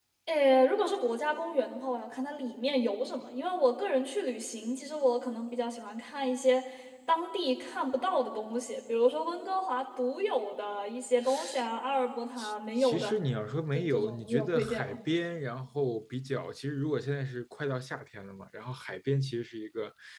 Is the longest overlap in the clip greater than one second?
Yes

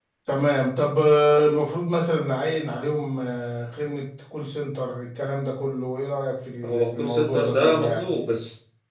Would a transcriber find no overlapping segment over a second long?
No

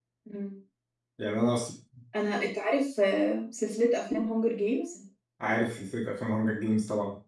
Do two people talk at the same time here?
No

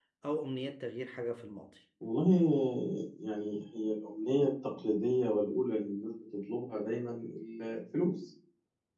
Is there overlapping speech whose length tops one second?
No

